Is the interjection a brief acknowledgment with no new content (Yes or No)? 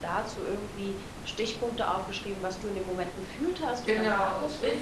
No